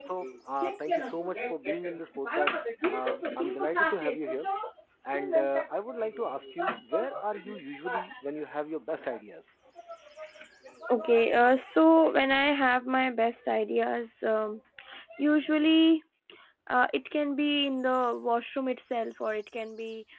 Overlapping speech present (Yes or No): Yes